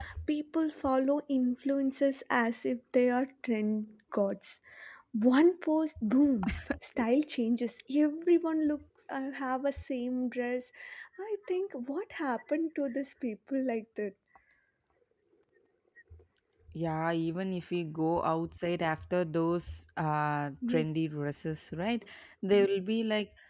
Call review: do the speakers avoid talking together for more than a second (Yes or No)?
Yes